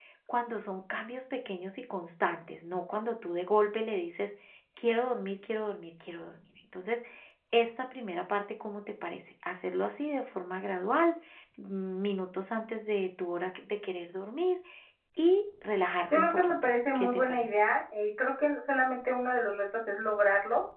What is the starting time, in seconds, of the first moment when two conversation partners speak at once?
16.1 s

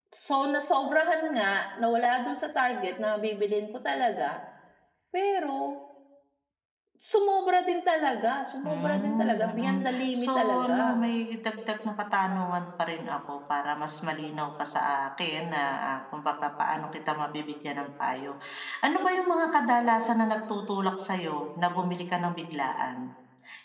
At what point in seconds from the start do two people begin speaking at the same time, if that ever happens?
8.6 s

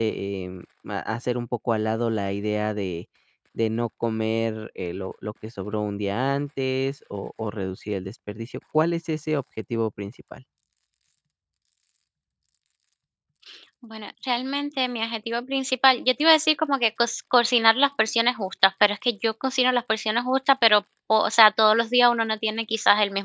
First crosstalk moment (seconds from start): none

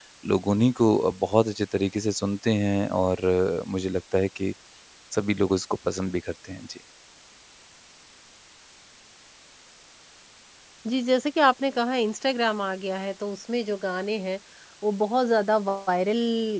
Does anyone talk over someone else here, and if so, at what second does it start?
none

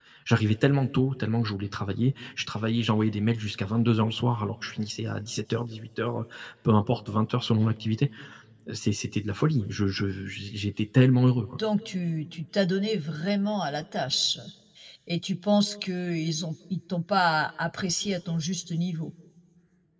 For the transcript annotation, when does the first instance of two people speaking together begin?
none

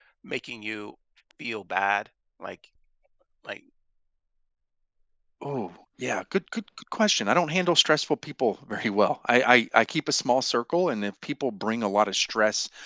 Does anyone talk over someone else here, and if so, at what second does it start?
none

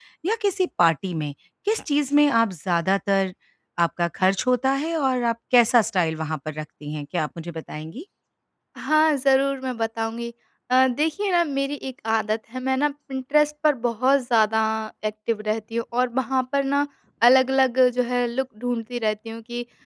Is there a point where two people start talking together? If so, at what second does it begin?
none

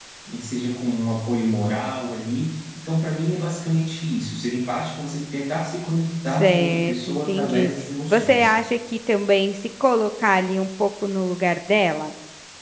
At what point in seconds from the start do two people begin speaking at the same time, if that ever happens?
6.3 s

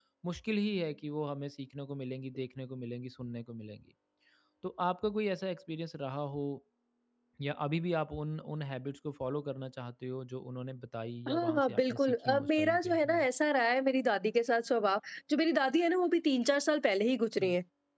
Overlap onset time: 11.3 s

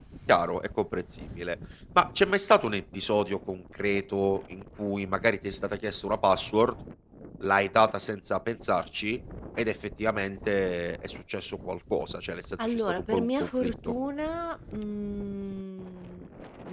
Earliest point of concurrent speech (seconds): 12.6 s

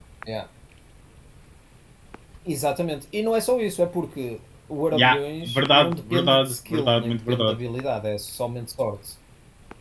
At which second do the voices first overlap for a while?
4.9 s

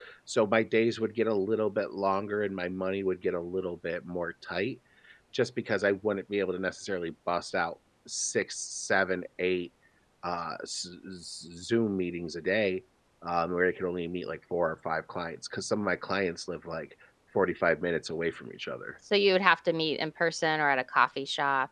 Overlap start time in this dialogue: none

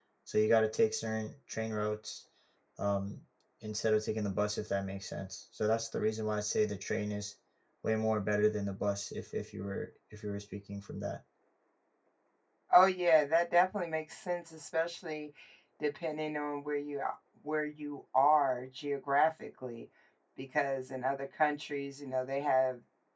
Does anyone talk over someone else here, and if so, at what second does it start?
none

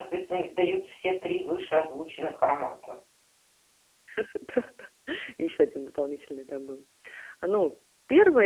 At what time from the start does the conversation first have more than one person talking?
none

